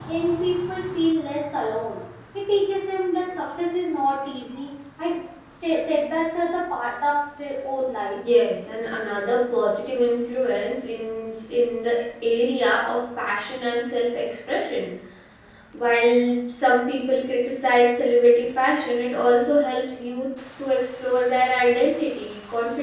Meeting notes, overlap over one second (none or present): none